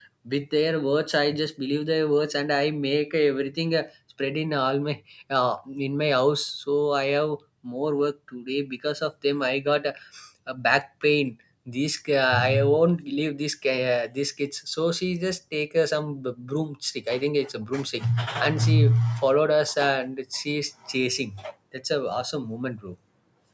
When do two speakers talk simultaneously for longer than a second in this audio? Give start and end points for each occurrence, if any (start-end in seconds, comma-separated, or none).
none